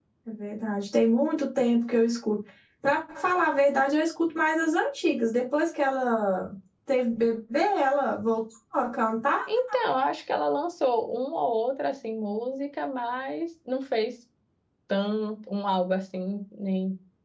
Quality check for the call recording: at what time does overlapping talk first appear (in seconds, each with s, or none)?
none